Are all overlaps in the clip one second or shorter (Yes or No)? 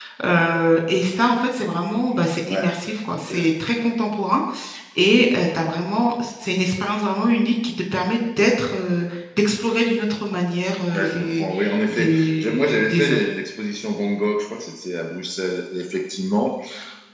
No